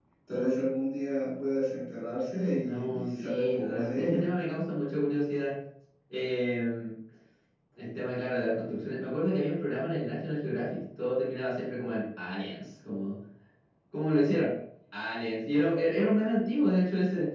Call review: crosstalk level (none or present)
present